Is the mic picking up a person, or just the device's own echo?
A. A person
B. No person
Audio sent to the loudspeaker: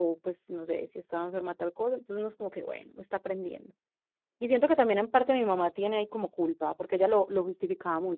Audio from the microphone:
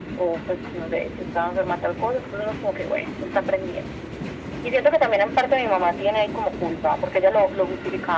B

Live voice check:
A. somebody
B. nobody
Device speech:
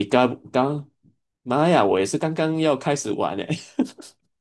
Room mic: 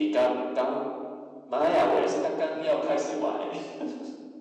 A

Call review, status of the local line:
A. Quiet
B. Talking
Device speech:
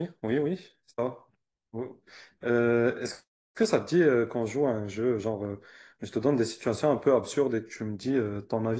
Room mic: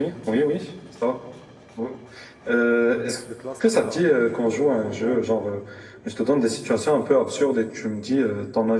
B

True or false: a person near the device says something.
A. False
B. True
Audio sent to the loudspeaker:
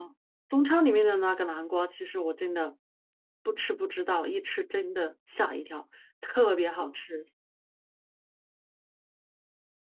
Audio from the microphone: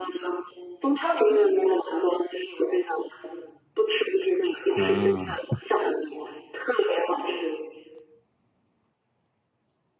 B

